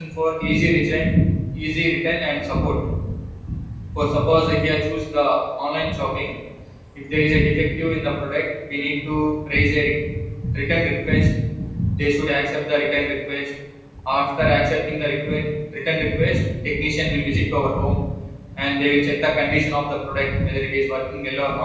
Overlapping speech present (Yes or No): No